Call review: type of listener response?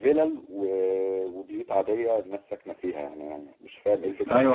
taking over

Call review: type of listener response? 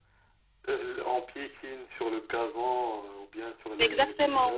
taking over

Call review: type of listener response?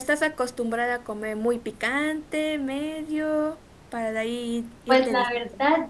taking over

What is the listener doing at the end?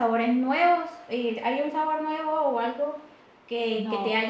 listening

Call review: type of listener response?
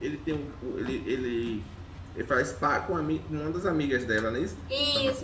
taking over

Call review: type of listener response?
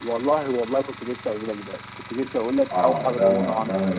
taking over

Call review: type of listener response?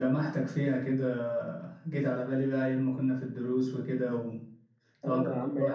taking over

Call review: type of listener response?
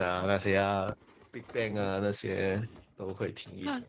taking over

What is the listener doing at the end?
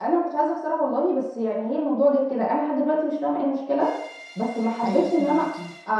listening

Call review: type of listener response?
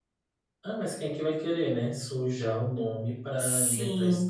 taking over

